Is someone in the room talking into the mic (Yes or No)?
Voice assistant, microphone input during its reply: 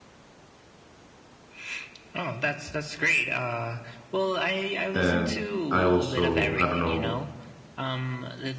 Yes